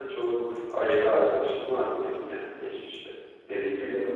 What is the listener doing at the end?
taking over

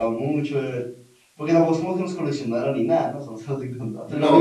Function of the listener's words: taking over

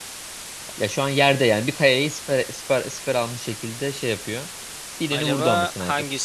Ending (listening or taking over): taking over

